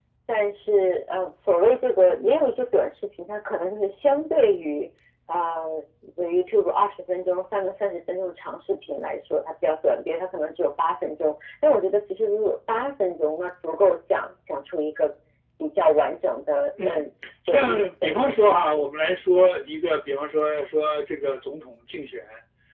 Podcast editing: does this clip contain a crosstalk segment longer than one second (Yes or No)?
Yes